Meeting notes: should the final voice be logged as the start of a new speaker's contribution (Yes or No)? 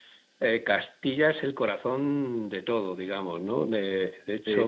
Yes